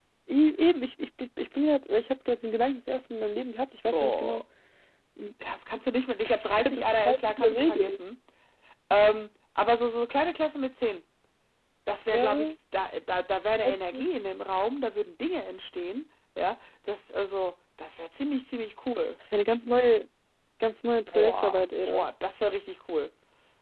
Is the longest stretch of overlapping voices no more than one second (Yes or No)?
No